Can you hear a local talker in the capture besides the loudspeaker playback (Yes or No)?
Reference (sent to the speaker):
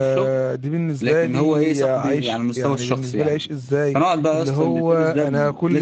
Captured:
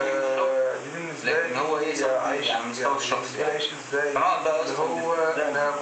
No